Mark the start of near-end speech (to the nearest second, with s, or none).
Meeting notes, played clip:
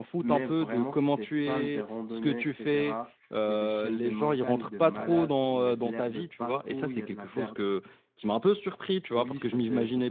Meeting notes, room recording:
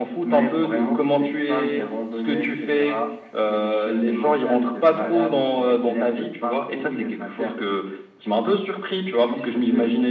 none